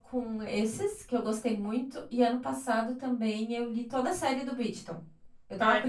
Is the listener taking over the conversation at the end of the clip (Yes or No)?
No